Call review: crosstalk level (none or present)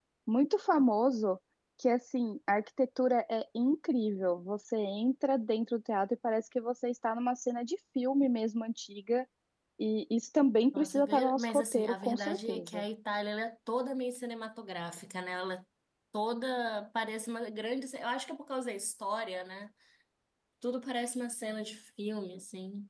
present